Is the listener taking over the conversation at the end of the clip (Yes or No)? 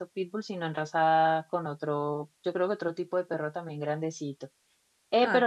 No